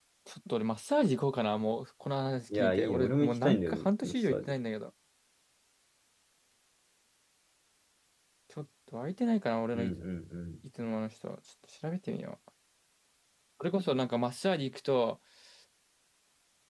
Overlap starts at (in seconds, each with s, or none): 2.5 s